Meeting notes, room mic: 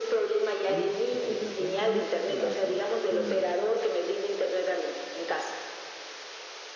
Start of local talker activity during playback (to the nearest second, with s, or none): 1 s